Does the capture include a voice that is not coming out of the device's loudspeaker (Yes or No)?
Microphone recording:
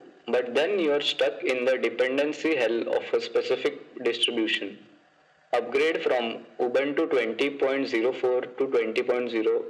No